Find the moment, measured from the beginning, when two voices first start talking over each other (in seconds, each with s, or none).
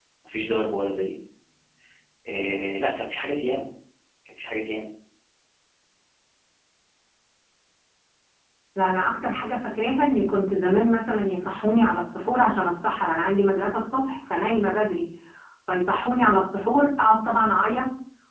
none